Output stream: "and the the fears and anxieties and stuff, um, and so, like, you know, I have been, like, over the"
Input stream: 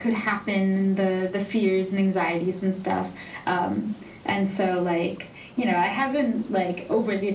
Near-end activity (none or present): none